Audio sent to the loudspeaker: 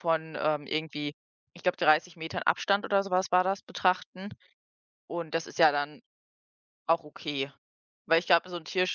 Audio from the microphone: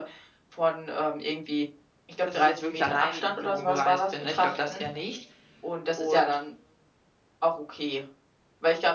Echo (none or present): present